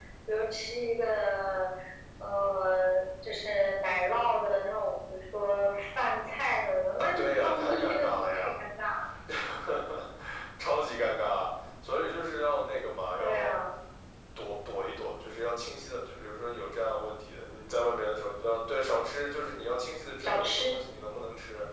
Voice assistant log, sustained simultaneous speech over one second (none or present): present